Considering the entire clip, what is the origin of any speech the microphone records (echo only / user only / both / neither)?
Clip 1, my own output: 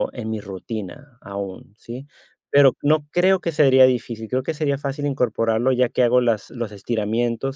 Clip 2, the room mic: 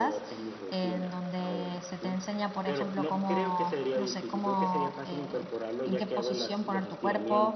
both